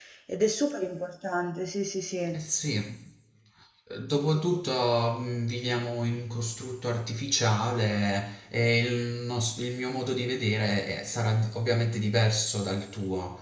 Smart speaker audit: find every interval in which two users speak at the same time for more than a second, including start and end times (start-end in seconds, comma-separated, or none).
none